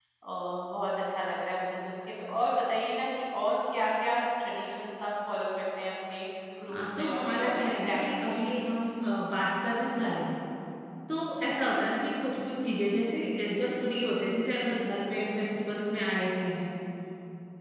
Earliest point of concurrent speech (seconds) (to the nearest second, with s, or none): 7 s